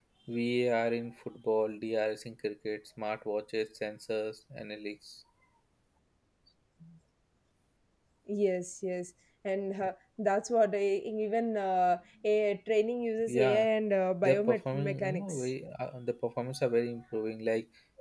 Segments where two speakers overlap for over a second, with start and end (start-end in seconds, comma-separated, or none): 14.2-15.5